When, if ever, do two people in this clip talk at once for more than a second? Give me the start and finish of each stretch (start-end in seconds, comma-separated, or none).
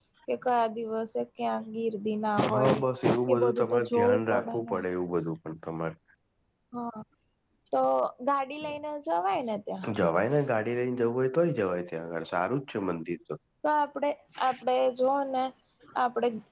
3.3-4.8